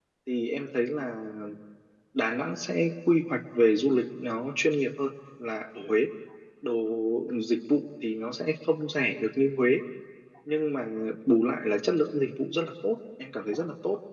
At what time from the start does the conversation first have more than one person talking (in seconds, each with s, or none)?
none